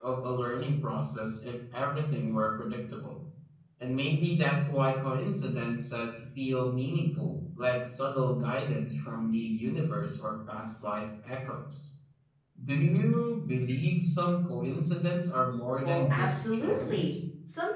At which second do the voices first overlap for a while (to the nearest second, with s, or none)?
16 s